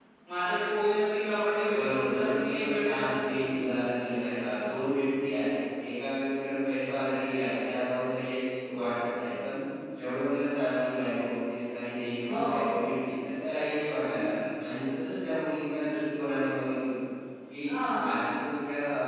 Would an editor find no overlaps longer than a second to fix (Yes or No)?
No